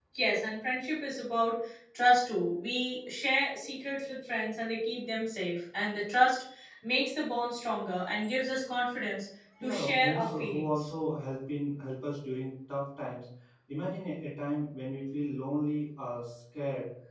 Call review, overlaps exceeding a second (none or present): present